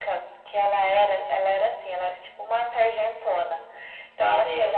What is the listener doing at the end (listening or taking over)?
listening